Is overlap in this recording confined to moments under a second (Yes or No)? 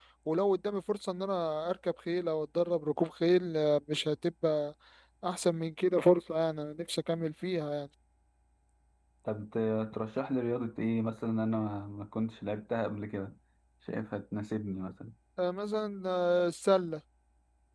Yes